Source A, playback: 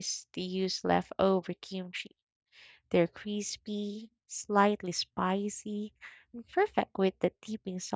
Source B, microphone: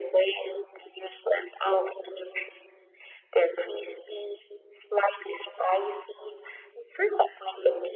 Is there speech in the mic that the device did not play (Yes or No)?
No